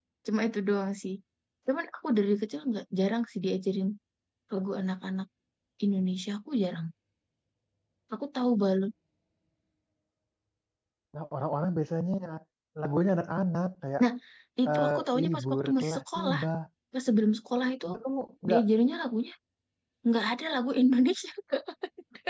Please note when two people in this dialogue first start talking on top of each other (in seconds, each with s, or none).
14.7 s